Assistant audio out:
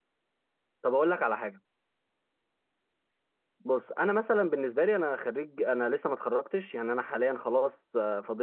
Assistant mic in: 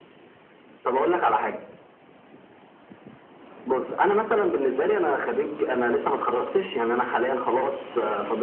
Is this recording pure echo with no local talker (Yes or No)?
Yes